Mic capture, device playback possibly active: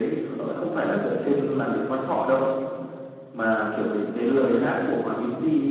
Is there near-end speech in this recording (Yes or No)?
No